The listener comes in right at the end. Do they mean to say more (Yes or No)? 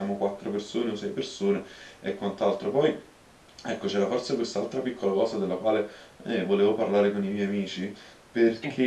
No